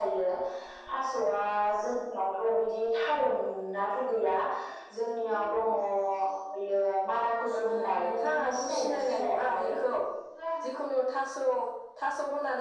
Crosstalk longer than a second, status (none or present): present